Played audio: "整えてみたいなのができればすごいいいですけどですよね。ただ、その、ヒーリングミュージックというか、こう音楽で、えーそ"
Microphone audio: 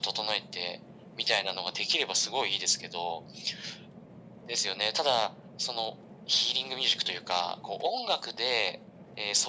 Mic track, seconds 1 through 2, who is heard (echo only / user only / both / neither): echo only